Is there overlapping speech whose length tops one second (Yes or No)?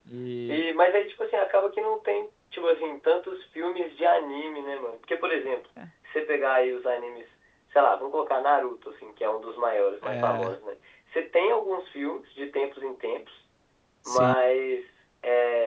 No